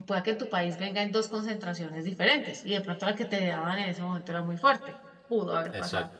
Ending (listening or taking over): taking over